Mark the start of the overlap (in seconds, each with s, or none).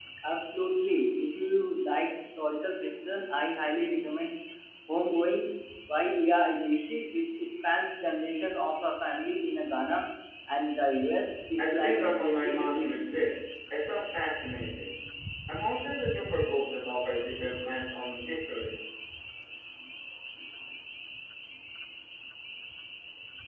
11.6 s